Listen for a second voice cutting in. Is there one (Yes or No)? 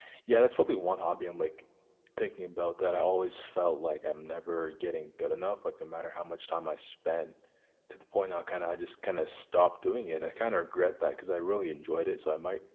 No